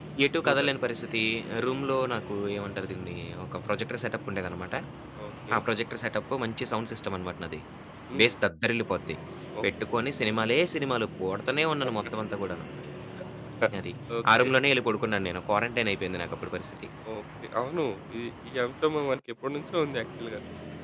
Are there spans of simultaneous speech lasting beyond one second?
No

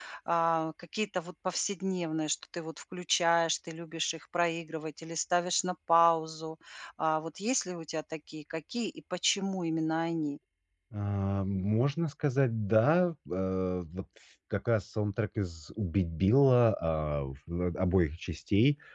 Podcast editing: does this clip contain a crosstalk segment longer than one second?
No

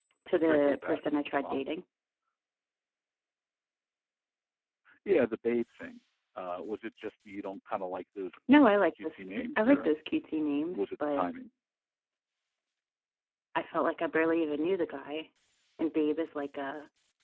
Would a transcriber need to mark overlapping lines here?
Yes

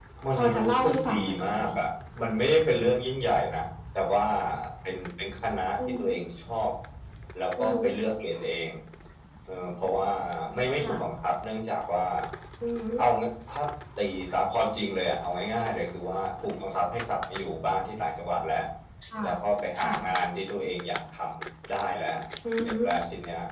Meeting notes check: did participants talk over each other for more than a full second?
Yes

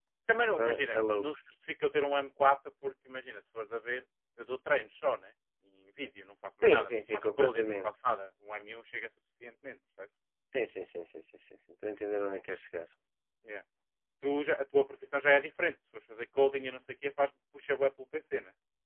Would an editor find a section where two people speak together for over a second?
Yes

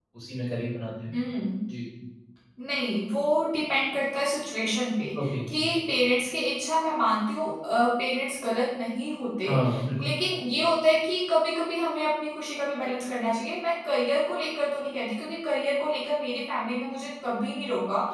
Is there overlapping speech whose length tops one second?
No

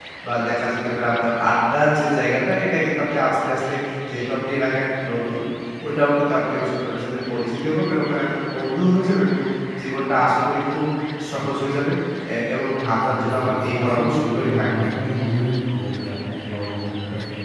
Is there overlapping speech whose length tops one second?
Yes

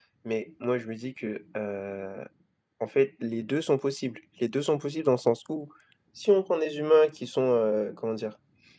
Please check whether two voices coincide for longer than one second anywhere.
No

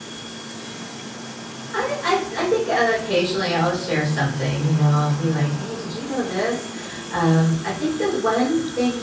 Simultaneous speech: No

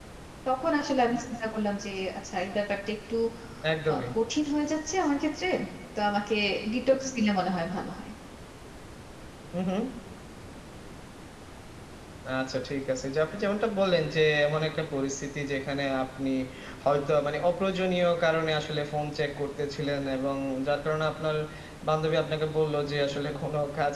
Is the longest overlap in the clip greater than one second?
No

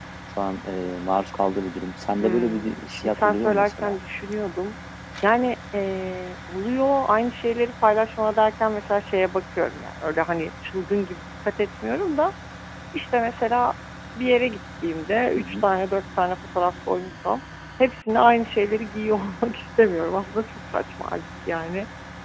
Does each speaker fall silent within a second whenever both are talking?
No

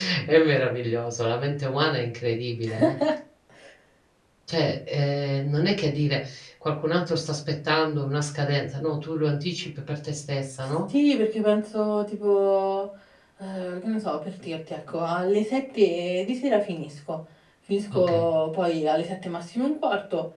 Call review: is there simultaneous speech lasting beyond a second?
No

